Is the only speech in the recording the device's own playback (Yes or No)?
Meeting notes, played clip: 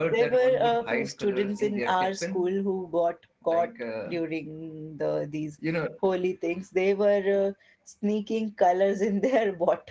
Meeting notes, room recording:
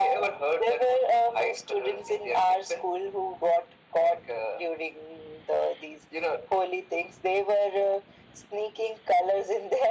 Yes